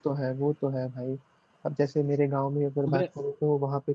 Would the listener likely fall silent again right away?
Yes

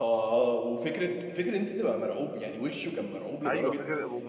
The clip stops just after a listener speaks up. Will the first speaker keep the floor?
No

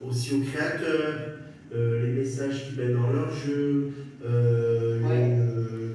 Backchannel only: Yes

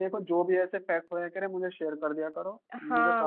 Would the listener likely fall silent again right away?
No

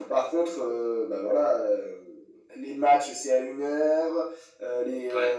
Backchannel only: Yes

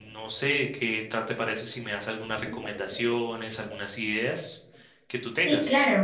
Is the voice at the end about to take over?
Yes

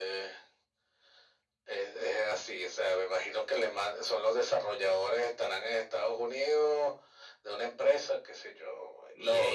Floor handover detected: Yes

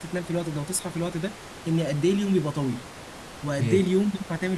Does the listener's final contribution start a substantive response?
No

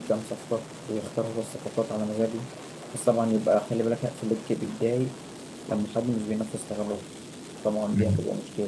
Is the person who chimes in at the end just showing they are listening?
Yes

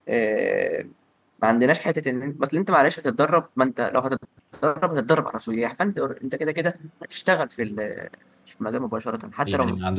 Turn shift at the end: Yes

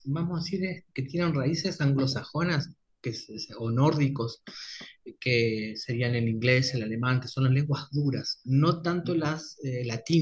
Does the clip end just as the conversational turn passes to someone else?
No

